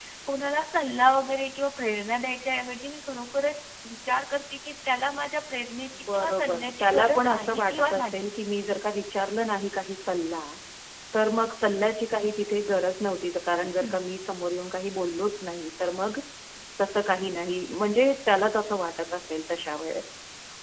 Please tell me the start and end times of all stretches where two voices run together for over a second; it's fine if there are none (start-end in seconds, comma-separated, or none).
6.0-8.3